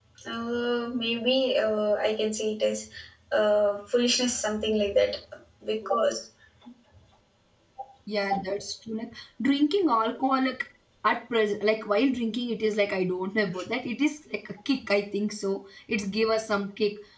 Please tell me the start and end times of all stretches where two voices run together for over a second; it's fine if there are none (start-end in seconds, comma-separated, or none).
none